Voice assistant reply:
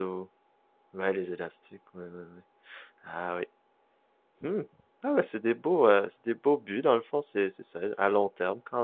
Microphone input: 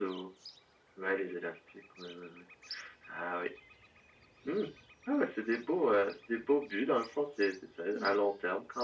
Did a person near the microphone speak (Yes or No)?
Yes